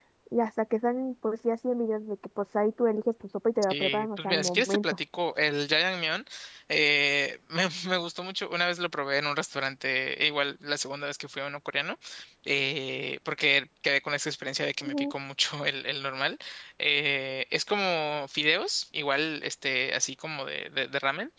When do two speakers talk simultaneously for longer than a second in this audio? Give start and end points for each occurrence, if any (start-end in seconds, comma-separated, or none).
3.7-5.0